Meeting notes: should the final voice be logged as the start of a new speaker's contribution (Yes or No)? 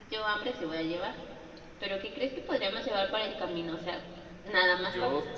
Yes